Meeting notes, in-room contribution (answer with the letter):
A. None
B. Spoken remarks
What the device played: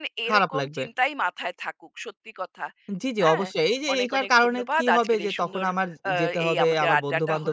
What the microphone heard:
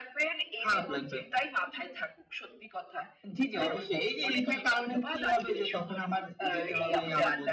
A